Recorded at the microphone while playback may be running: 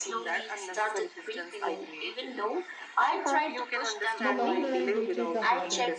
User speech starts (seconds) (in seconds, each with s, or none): 4.2 s